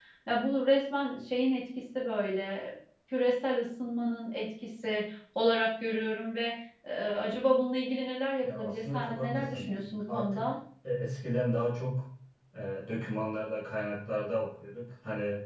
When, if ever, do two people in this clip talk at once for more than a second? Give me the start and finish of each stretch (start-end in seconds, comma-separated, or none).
8.4-10.5